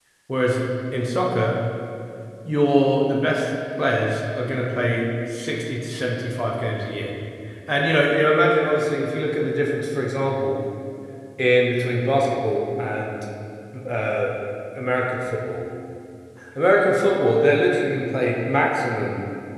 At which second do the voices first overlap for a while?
none

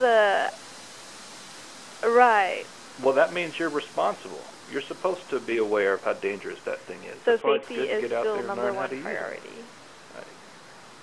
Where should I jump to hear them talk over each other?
7.2 s

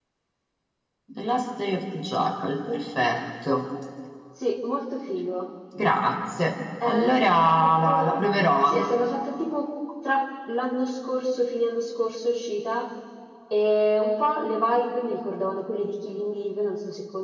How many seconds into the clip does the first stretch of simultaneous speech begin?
6.8 s

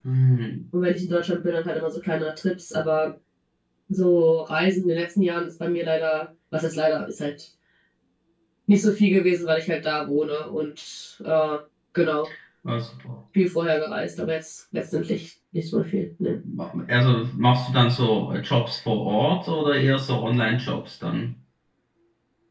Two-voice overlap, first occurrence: none

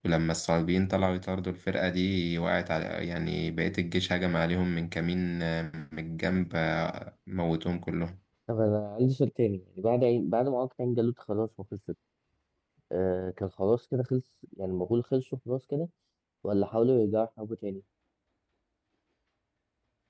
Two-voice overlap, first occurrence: none

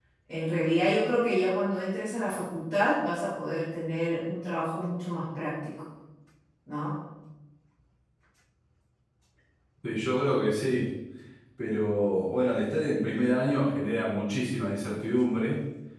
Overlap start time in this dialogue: none

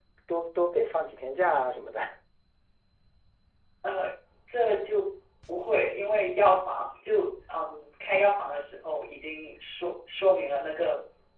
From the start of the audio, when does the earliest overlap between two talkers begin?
none

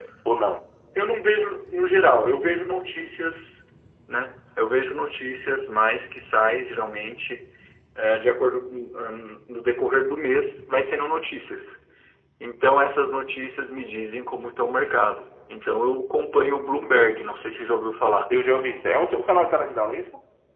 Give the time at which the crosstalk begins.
none

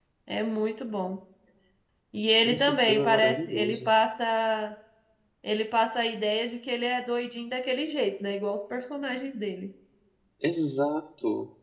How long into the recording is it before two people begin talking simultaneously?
2.4 s

